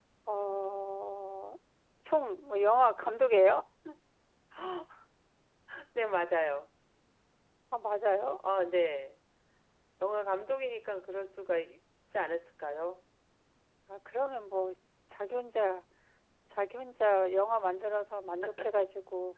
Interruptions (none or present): none